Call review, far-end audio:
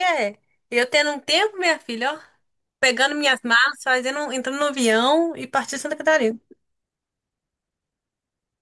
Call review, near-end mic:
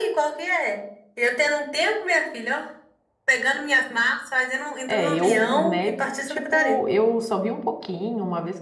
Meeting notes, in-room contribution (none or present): present